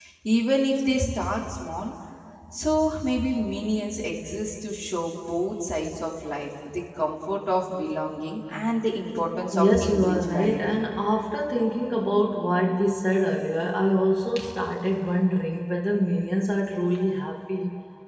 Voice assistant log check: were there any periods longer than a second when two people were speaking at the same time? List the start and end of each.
9.6-10.8

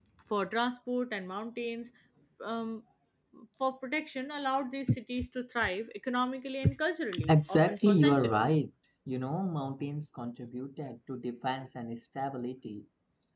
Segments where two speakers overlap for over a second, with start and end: 7.3-8.5

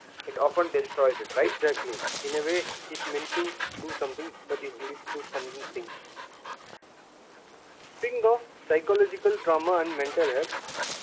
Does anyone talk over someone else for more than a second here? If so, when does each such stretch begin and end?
none

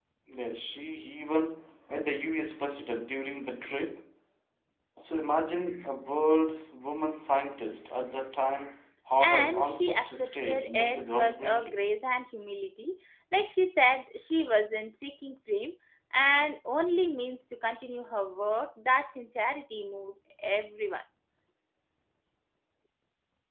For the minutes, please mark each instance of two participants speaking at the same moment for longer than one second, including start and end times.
9.2-11.8

